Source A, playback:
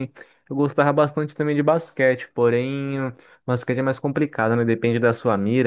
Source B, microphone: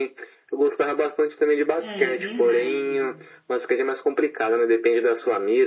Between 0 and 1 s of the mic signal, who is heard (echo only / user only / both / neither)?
echo only